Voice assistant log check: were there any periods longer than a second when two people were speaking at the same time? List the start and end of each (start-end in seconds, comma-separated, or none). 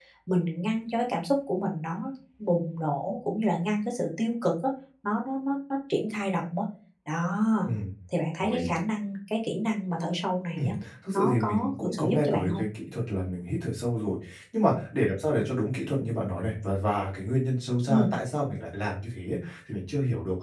11.1-12.6